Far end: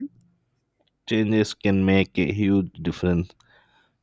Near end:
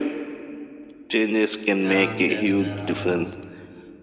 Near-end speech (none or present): present